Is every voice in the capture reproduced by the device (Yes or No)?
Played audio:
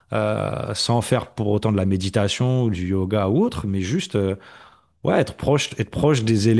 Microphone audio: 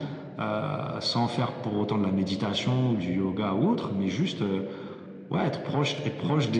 Yes